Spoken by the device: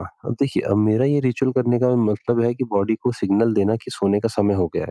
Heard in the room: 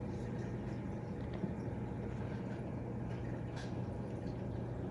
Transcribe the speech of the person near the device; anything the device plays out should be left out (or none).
none